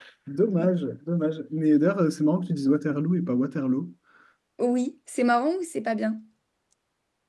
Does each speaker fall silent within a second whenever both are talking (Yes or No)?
Yes